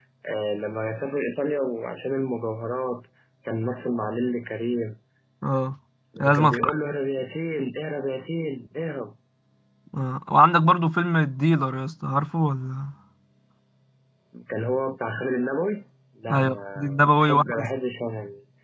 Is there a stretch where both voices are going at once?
Yes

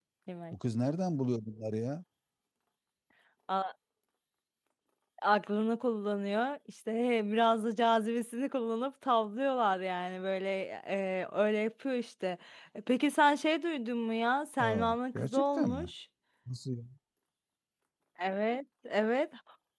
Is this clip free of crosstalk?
No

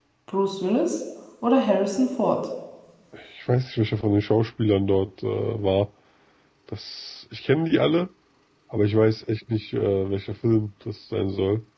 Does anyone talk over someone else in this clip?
No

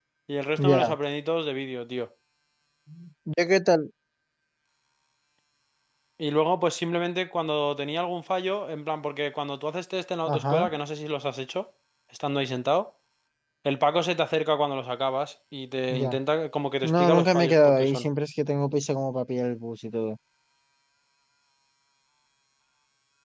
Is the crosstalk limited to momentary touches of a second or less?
No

